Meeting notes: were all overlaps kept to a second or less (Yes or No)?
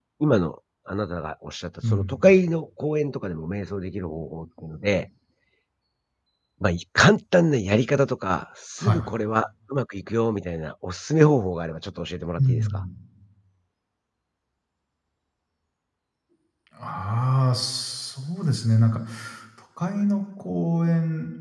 Yes